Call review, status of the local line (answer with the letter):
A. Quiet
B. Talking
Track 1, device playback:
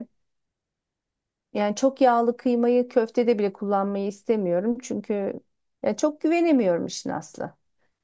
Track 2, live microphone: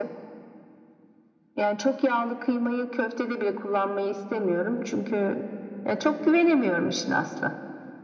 A